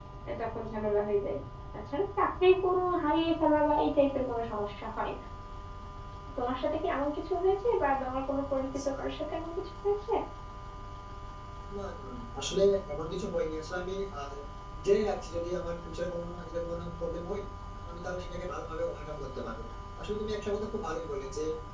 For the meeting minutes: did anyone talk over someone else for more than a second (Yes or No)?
No